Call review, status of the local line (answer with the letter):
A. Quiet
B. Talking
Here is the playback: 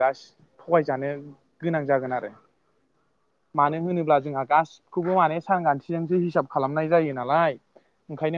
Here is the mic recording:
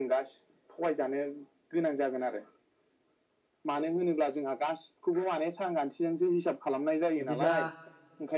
B